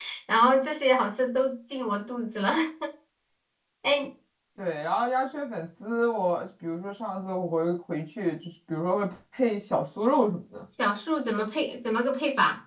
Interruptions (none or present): none